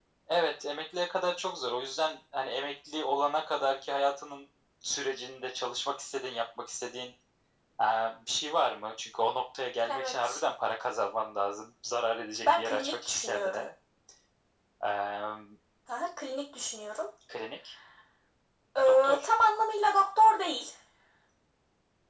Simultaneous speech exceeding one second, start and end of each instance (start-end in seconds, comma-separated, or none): 12.4-13.7